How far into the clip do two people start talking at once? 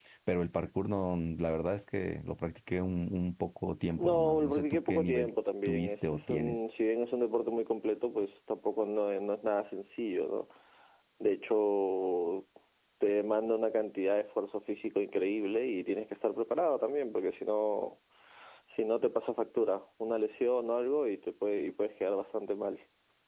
3.9 s

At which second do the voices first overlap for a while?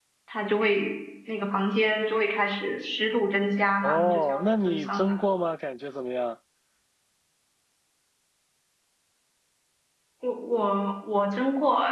3.8 s

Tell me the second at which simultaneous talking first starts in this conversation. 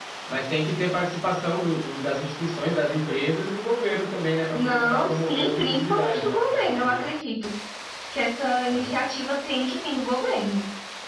4.5 s

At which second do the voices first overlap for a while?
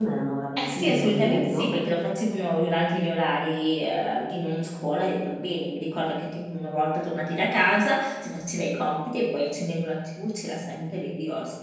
0.6 s

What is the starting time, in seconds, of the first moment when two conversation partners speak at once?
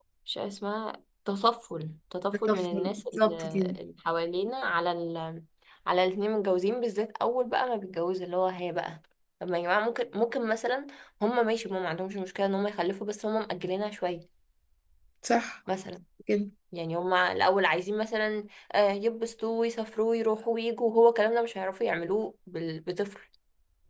2.5 s

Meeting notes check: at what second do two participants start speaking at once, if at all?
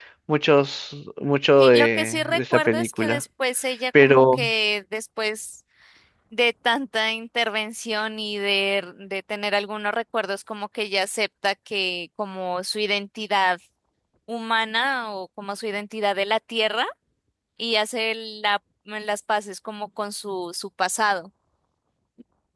1.6 s

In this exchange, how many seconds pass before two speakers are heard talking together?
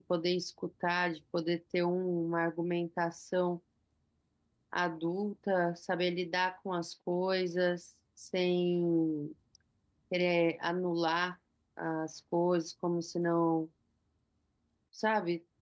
none

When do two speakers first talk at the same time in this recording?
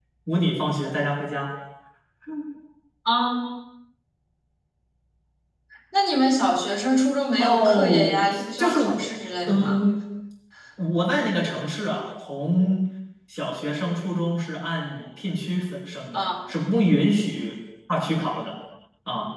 7.4 s

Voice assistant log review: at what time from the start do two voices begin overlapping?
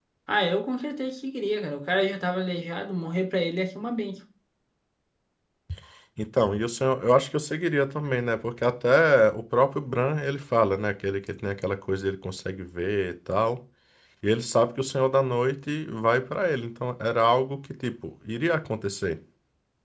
none

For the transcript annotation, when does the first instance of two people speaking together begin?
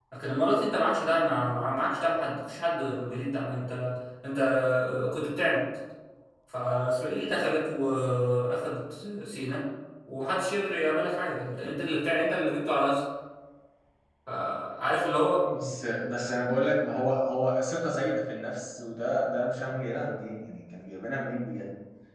none

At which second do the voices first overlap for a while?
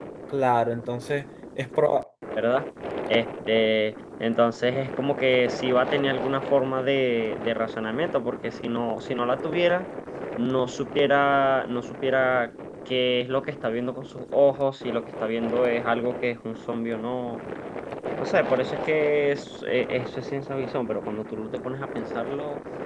none

